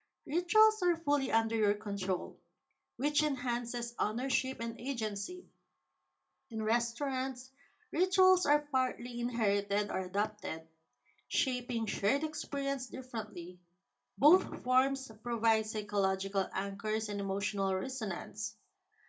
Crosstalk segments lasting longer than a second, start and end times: none

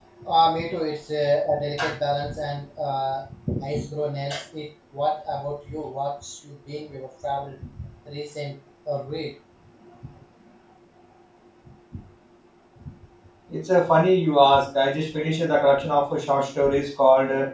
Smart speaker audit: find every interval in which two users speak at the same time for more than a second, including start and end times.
none

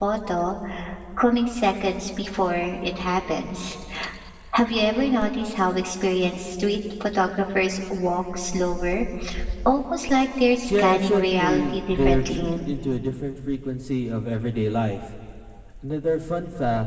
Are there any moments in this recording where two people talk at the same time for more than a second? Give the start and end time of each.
10.8-12.5

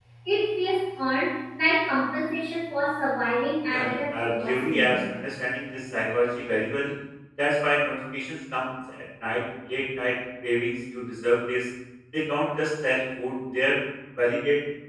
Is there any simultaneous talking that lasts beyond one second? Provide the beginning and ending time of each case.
3.7-5.0

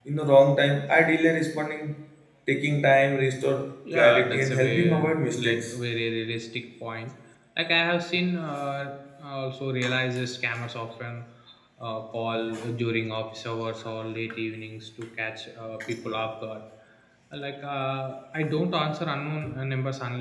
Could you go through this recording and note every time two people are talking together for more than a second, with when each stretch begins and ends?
3.9-5.8

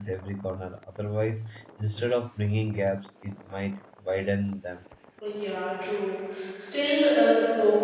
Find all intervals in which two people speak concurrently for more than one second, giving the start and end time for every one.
none

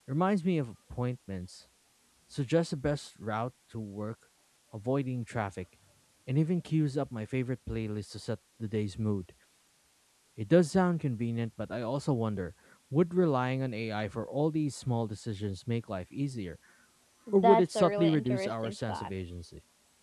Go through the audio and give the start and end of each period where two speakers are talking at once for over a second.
17.3-19.1

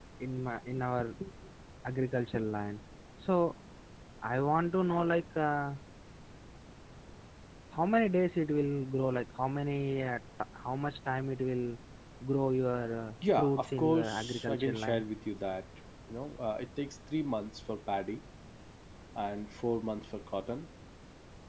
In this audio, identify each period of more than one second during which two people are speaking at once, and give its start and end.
13.4-15.0

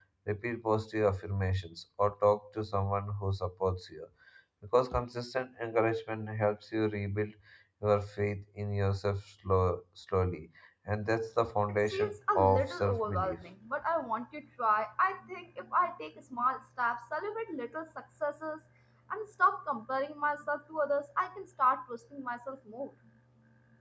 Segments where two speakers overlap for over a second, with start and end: 11.9-13.4

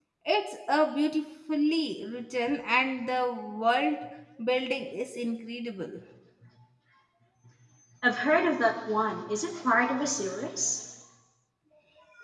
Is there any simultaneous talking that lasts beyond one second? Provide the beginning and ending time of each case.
none

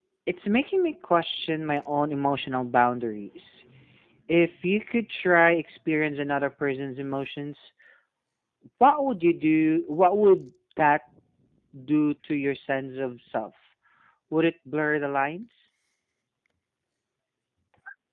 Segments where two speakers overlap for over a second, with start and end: none

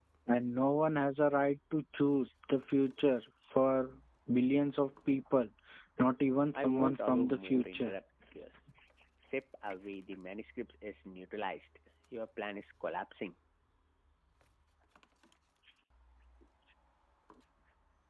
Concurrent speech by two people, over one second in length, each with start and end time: 6.6-8.0

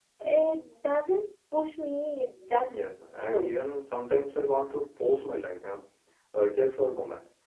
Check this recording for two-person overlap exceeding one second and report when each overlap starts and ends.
none

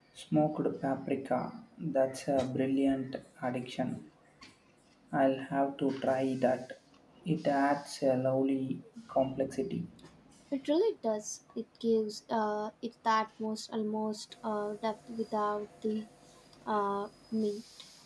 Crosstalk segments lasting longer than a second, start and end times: none

